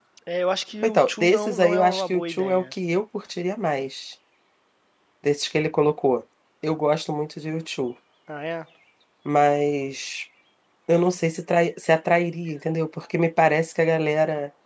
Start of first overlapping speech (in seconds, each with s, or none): 0.8 s